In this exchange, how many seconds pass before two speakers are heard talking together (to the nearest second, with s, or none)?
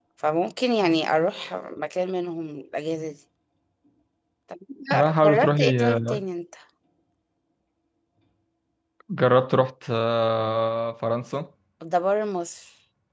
5 s